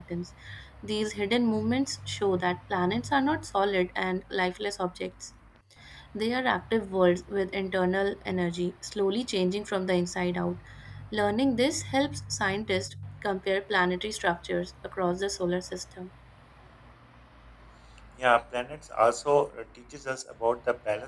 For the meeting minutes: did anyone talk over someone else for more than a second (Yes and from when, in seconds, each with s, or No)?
No